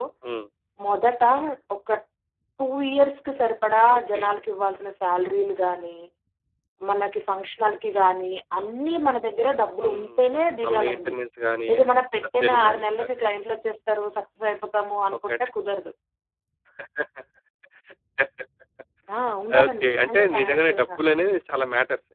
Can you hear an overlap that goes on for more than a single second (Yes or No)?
Yes